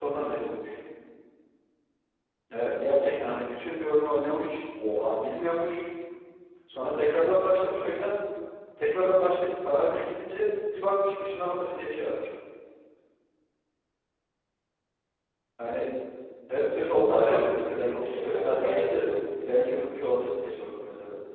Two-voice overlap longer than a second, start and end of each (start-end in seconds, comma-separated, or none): 16.9-19.0